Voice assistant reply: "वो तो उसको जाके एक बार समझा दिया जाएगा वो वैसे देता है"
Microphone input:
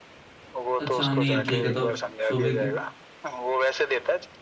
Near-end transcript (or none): अच्छा नहीं ठीक है तब सुबह क्या